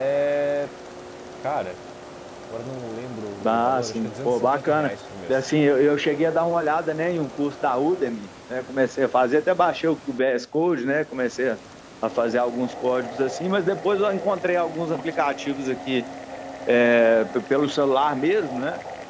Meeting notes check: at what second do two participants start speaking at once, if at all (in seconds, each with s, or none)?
3.4 s